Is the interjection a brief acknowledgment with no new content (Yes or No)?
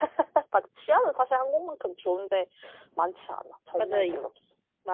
No